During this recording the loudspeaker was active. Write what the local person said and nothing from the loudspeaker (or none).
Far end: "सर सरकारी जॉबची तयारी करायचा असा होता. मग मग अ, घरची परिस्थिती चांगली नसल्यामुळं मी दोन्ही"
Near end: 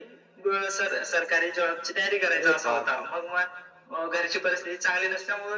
अरे बापरे!